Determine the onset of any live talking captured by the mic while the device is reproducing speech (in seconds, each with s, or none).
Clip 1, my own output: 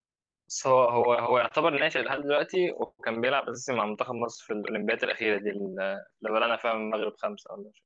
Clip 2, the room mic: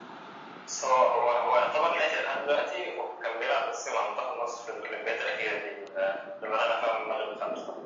none